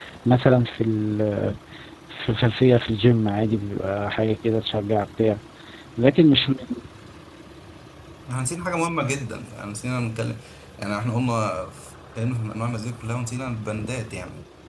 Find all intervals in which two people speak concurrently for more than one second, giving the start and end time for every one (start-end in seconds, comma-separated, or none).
none